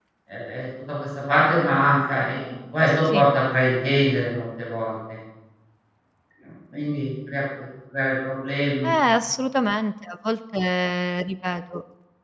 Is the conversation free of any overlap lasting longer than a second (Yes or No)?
Yes